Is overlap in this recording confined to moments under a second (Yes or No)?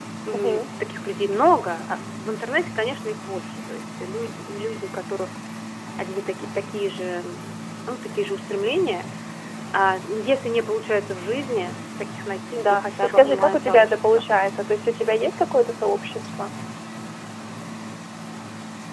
No